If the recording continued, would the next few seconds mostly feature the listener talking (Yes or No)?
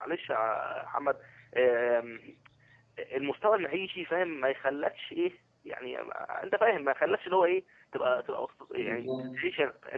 No